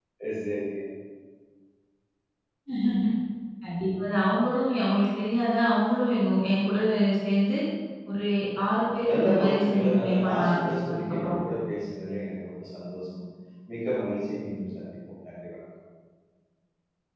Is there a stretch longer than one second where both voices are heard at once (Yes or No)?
Yes